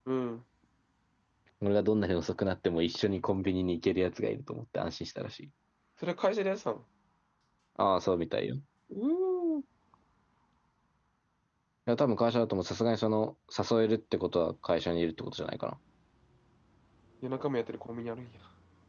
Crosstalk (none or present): none